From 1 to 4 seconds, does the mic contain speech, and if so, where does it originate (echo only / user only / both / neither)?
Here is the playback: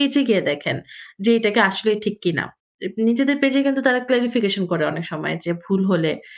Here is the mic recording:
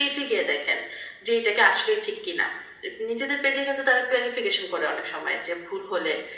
echo only